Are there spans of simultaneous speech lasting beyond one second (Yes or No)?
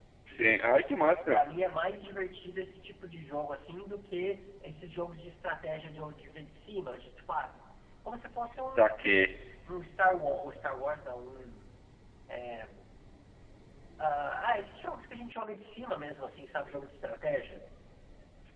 No